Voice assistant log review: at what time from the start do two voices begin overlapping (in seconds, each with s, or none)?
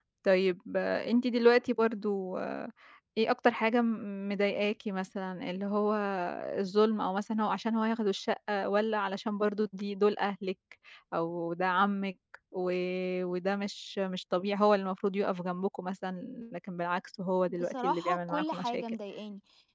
17.5 s